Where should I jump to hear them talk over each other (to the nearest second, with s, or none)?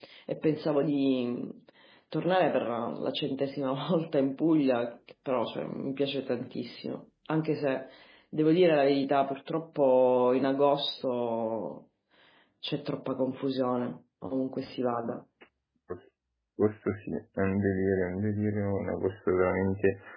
none